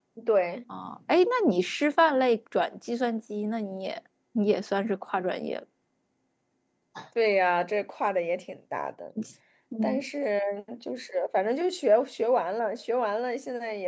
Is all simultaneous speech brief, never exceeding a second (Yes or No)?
Yes